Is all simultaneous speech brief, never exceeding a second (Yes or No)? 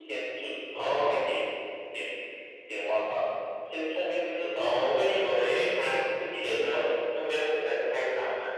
No